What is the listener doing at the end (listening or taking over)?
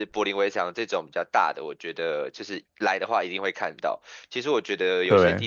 listening